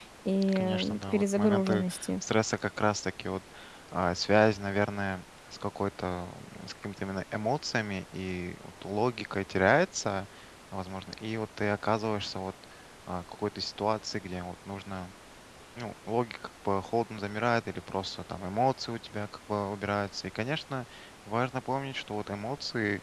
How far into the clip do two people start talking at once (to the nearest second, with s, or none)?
1 s